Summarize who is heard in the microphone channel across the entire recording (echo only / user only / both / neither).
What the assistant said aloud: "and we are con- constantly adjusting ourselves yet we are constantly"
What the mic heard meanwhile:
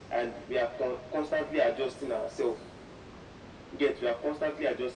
echo only